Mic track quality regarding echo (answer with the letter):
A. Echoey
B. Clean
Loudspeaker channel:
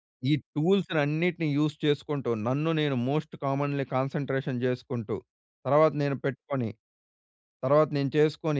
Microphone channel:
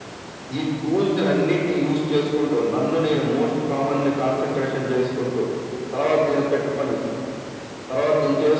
A